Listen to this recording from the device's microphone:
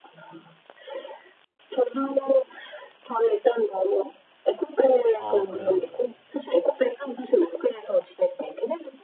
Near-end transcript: 아 그래요?

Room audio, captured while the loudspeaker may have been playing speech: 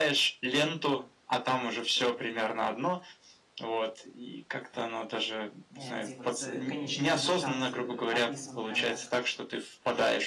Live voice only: э, где вот э, конечный результат э, описан прям как

